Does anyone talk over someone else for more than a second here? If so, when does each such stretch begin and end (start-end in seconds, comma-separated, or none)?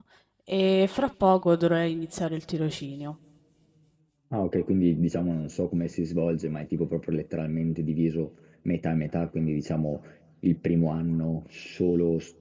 none